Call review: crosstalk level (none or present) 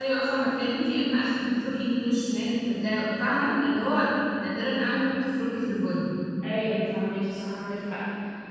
none